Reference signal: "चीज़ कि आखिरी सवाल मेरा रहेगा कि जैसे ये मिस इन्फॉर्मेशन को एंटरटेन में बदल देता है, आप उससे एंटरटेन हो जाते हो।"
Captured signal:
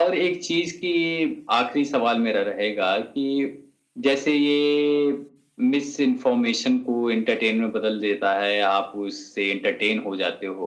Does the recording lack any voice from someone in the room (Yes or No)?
Yes